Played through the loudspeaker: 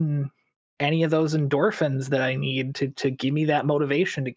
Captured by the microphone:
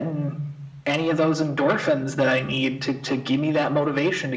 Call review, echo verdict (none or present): present